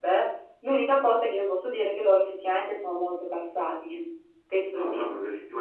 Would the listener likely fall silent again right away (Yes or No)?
No